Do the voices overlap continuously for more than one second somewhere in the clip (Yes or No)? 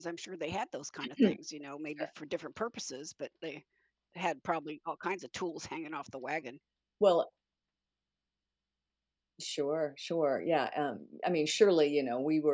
No